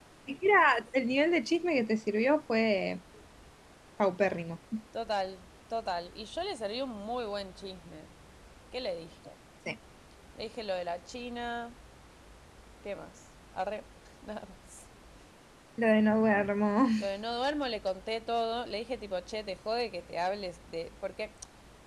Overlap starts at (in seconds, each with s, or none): none